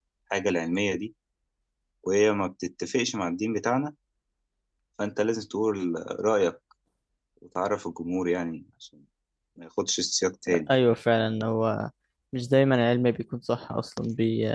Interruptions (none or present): none